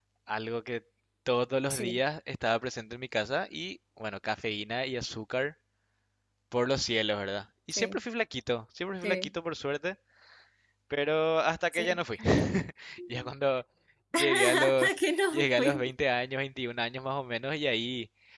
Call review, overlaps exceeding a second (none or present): present